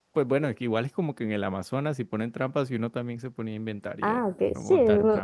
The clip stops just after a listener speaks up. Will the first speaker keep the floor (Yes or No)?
No